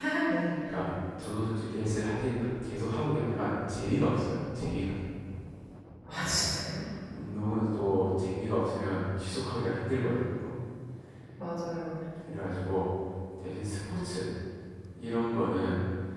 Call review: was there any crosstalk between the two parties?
No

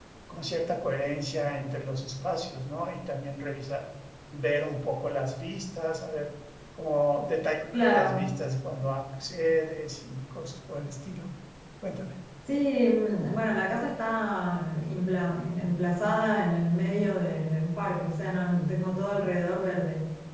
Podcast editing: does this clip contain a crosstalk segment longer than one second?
No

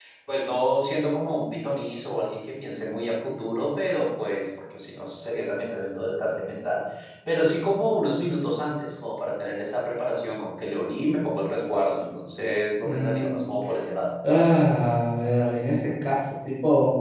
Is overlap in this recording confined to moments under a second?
Yes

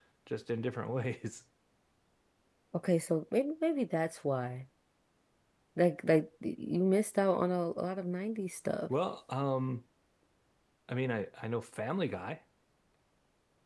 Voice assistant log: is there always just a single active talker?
Yes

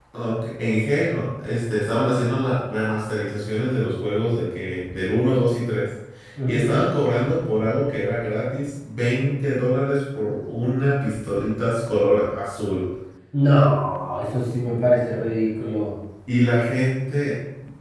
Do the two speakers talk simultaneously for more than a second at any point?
No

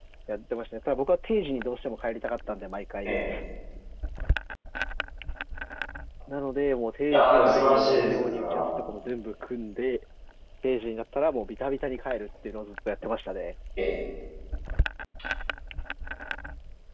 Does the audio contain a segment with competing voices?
Yes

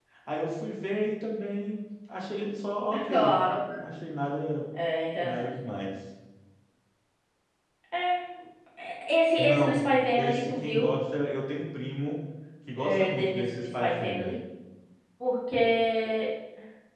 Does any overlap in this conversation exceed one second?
Yes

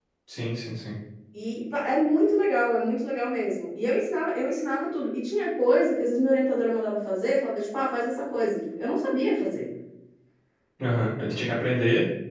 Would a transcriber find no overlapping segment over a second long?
Yes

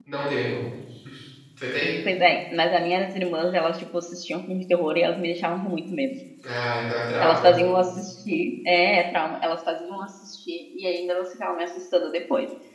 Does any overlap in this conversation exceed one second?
No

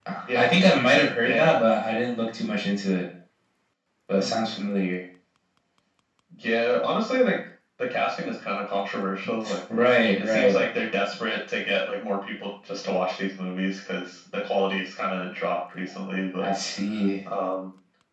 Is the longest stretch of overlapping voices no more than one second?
Yes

